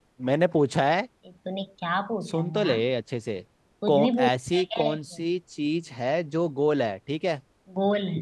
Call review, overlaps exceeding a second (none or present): present